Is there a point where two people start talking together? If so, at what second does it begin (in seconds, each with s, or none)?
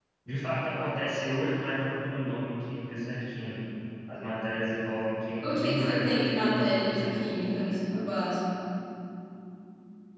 5.4 s